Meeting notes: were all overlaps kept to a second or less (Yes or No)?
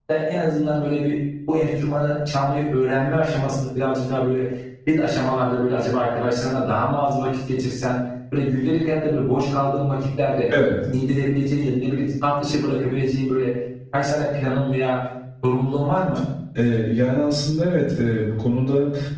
Yes